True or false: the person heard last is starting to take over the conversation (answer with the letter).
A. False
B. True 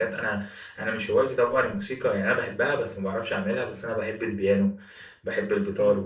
A